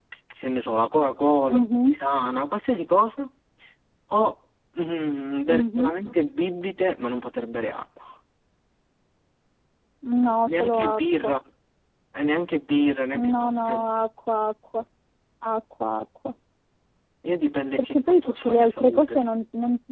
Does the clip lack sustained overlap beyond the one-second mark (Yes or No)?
No